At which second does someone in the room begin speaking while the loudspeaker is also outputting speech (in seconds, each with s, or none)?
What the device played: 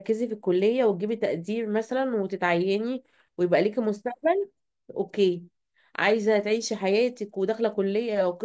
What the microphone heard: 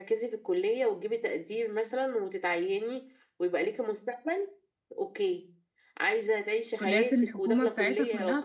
6.8 s